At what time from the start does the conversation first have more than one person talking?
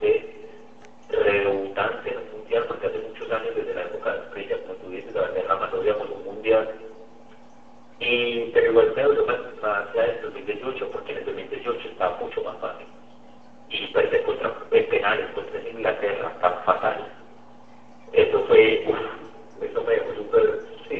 none

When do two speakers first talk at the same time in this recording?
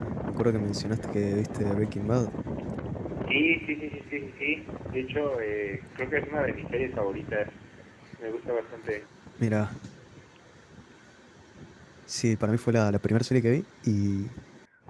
none

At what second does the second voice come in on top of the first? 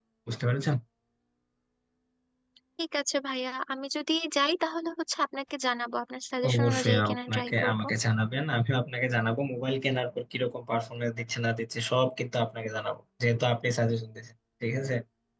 6 s

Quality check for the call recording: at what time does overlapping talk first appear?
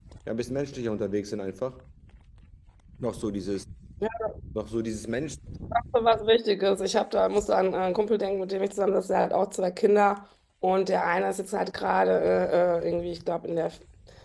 none

